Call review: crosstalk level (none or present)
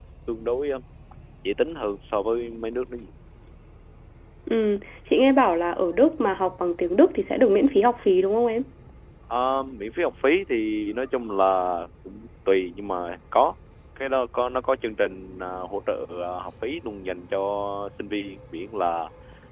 none